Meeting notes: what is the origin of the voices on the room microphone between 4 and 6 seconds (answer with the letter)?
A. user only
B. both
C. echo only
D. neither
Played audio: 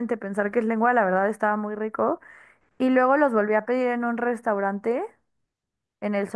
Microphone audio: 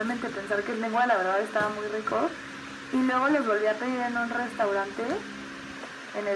C